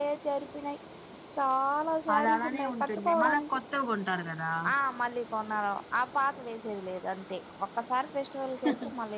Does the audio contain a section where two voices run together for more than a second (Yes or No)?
Yes